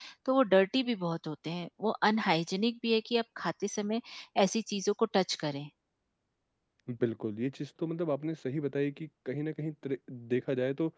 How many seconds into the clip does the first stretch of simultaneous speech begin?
none

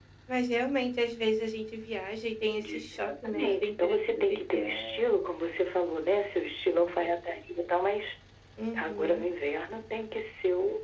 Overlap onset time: 2.6 s

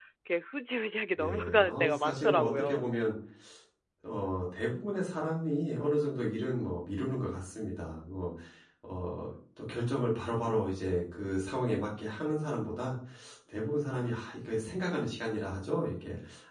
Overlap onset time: 1.2 s

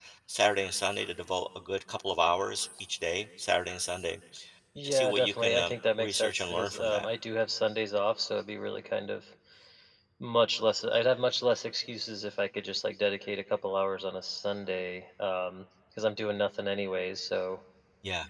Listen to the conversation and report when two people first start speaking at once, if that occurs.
4.8 s

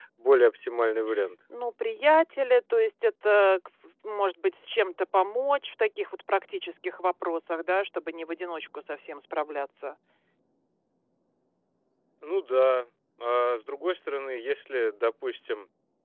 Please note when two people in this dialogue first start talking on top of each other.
none

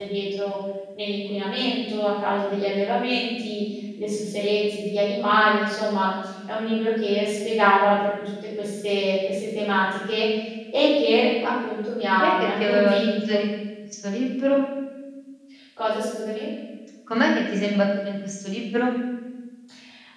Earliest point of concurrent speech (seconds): 12.2 s

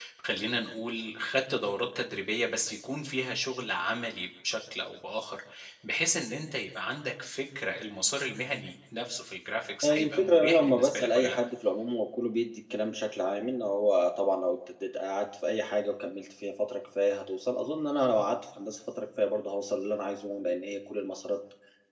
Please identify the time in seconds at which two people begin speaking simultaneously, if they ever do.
9.8 s

